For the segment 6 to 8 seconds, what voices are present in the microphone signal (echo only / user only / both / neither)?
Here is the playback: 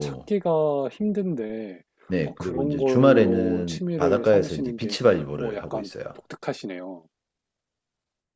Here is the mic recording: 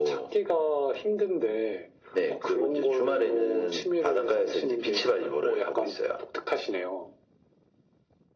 echo only